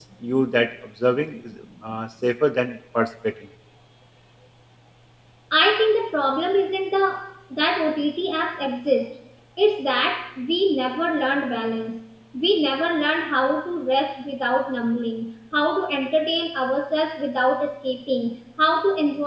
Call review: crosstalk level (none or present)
none